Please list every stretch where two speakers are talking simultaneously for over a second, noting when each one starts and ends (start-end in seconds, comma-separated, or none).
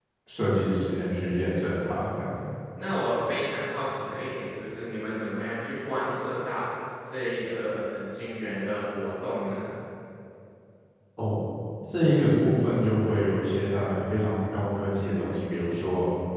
none